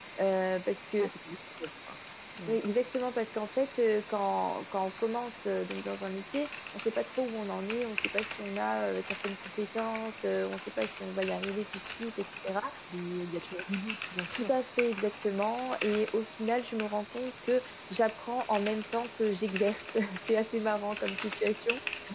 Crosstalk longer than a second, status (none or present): none